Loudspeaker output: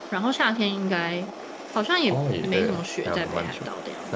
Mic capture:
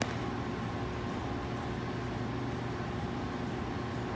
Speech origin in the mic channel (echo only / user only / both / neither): neither